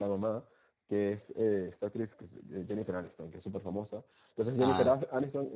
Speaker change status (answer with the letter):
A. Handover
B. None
B